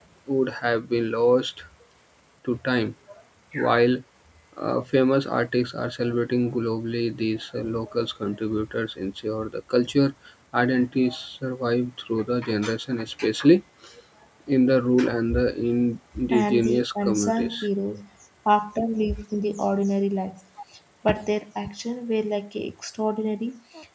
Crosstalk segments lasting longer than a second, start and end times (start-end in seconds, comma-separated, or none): 16.4-17.7